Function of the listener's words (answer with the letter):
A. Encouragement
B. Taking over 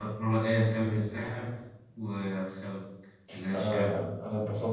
B